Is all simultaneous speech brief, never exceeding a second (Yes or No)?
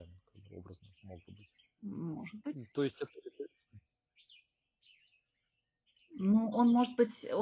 Yes